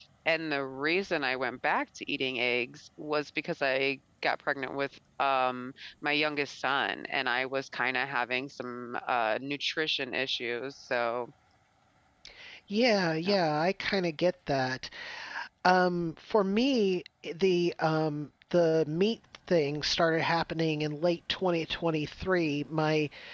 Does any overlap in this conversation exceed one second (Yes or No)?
No